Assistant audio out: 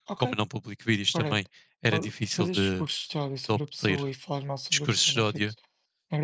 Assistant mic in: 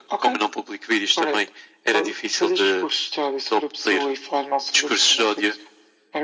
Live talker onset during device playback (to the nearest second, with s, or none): none